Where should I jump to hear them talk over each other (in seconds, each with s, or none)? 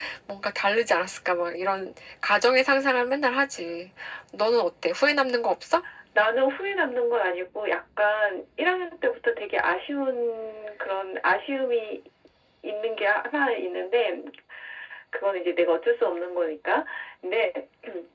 none